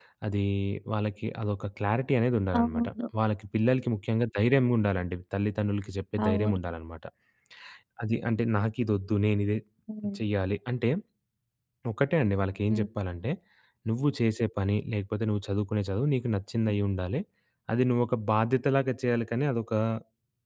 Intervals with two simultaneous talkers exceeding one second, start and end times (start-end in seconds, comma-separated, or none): none